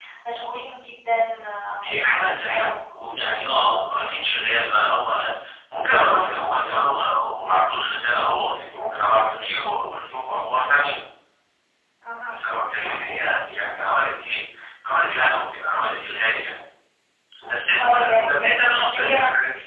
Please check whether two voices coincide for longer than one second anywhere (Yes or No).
Yes